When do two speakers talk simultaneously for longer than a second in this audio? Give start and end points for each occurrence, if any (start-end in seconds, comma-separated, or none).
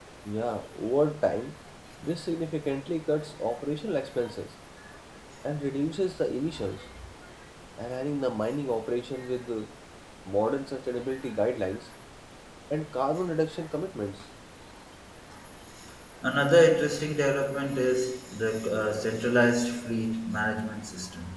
none